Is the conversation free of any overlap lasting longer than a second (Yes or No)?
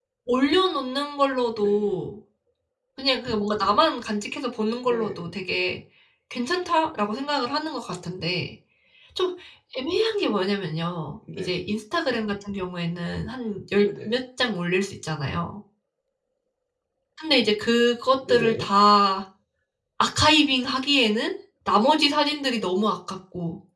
Yes